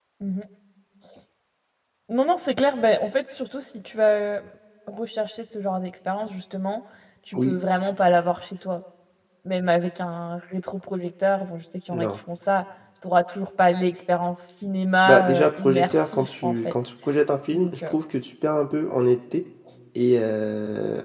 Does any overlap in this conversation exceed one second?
Yes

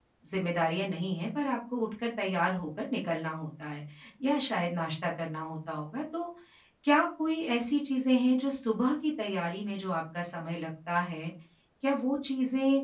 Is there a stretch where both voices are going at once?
No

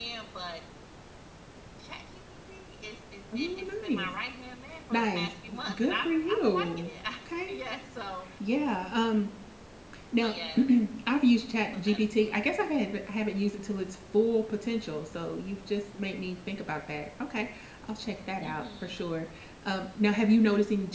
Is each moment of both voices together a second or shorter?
No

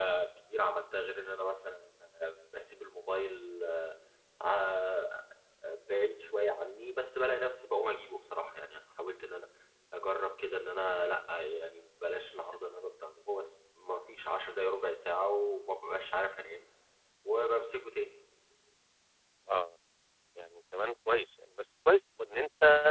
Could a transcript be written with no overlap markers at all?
Yes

